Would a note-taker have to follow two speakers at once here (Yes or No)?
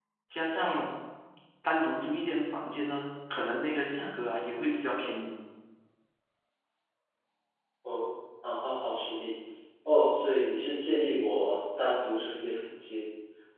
No